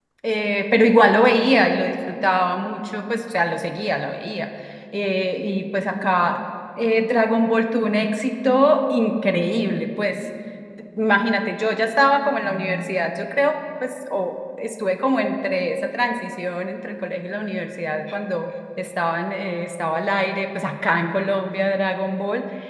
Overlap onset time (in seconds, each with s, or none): none